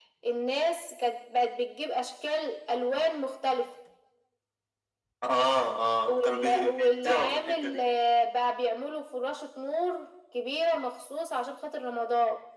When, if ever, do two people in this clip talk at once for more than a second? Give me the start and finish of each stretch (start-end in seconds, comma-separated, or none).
6.1-7.8